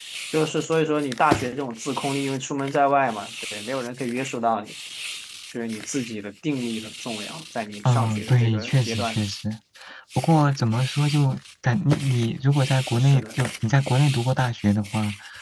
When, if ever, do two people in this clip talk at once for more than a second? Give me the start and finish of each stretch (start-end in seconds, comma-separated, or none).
7.8-9.4